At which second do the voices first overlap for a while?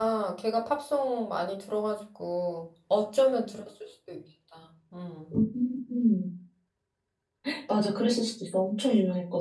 none

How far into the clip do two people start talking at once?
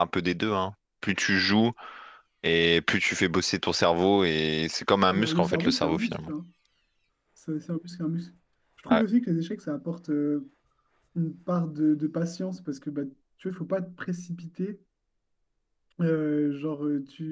5 s

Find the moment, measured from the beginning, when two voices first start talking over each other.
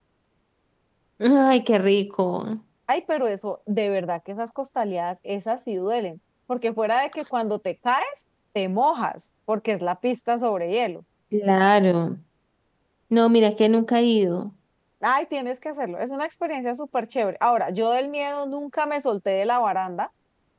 none

